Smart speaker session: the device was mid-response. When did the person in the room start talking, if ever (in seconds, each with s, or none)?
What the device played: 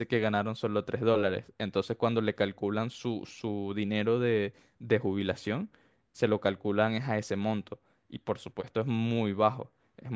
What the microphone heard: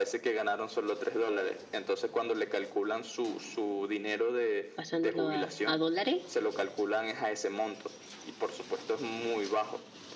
4.7 s